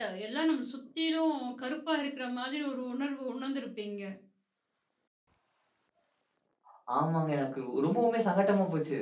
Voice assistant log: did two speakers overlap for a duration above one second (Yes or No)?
No